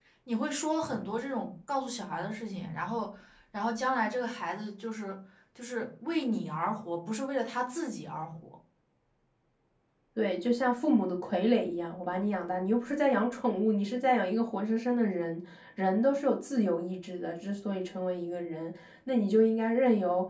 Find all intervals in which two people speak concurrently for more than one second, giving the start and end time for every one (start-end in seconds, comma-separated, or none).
none